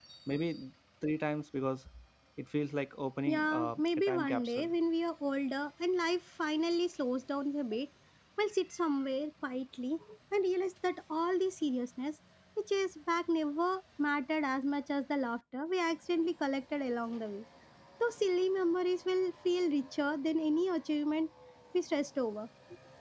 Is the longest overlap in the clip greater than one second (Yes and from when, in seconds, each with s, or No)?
Yes, from 3.3 s